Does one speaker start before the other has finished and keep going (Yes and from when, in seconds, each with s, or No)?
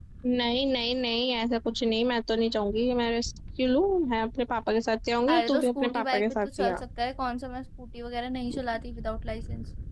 Yes, from 5.3 s